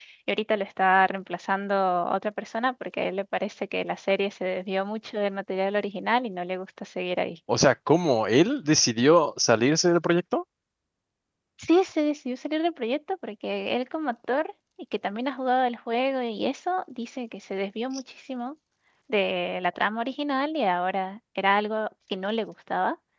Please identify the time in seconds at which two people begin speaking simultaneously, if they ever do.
none

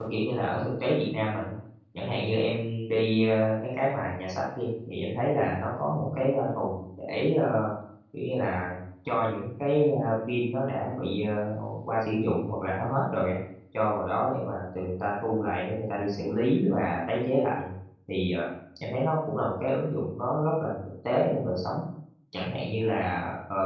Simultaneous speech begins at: none

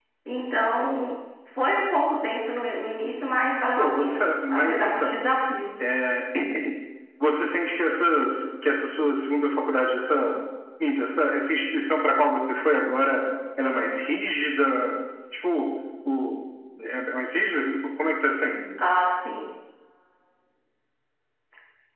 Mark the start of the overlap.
3.8 s

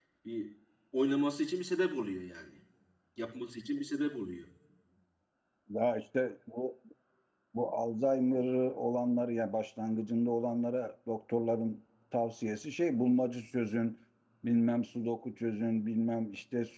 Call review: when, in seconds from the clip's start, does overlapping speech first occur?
none

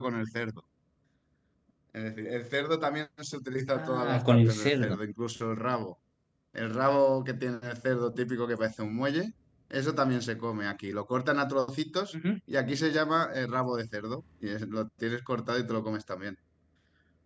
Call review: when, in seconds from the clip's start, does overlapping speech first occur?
3.7 s

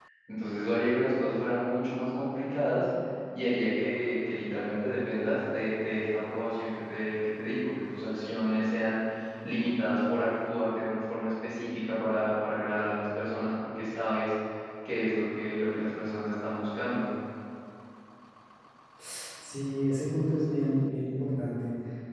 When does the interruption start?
none

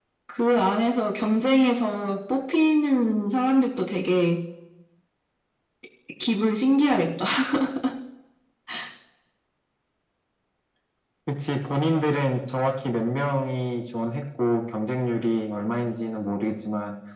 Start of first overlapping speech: none

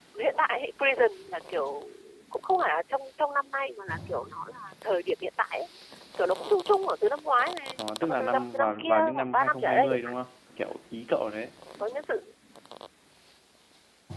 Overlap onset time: 7.8 s

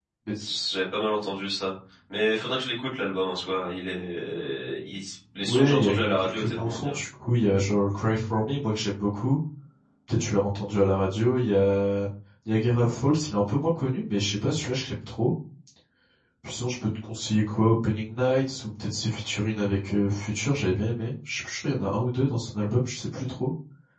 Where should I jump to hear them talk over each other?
5.4 s

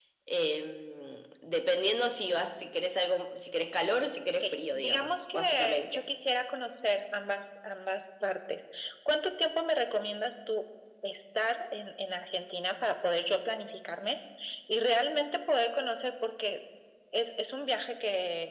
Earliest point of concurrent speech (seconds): 4.4 s

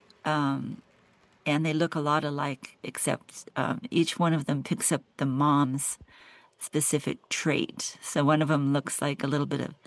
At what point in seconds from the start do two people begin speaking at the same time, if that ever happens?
none

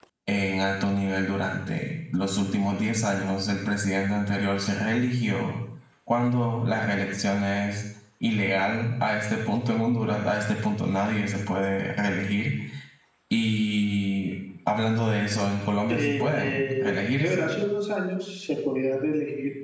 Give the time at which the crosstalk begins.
15.9 s

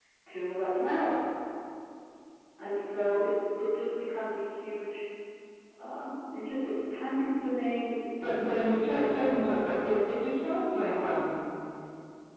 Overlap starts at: 8.2 s

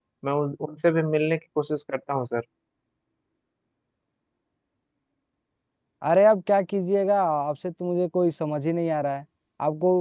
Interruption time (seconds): none

